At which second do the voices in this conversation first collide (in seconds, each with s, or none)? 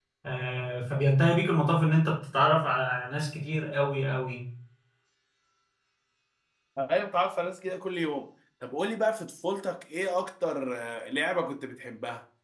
none